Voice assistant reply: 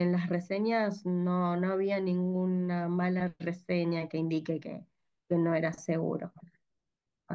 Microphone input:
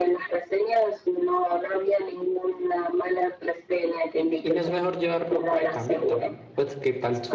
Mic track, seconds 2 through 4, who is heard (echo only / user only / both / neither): echo only